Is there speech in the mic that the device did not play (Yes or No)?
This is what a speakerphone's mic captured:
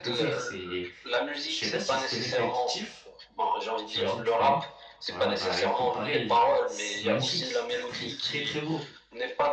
Yes